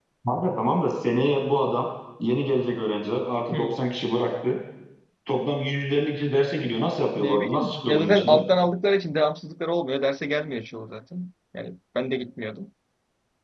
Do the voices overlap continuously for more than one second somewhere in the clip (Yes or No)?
Yes